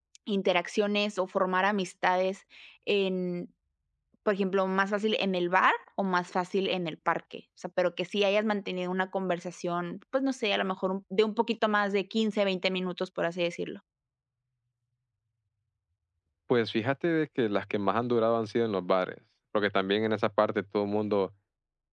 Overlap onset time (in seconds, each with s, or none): none